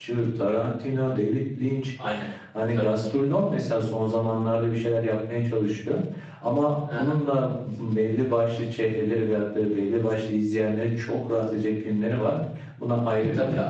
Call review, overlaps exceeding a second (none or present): none